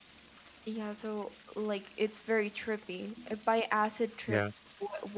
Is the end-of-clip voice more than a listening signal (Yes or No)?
No